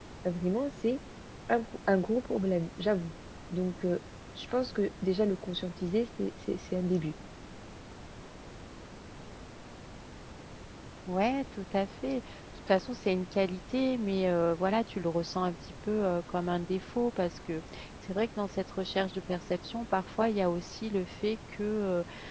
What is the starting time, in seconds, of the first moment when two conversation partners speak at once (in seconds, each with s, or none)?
none